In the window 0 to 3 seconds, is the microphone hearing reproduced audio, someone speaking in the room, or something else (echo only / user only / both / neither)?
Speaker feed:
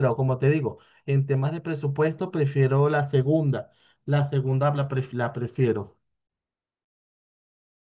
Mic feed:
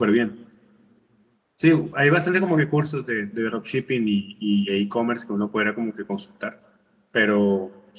user only